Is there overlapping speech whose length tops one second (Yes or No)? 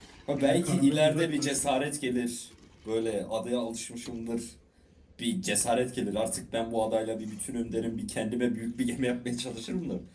Yes